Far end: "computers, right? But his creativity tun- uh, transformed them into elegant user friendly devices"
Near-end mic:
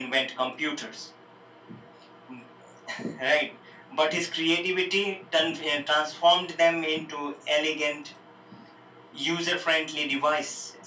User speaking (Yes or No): No